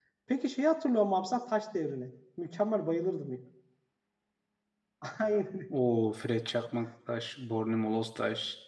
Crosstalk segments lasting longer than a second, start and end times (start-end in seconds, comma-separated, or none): none